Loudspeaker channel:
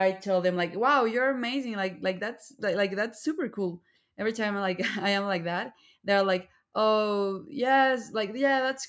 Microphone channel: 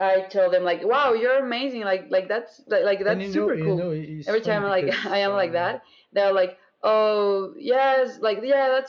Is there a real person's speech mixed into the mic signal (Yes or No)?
Yes